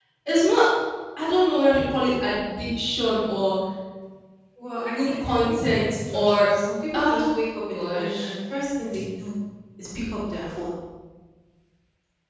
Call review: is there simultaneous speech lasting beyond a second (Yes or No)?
Yes